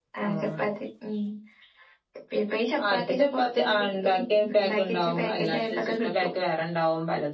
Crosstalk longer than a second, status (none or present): present